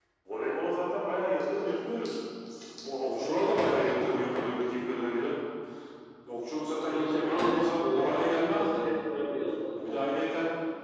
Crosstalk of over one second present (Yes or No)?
Yes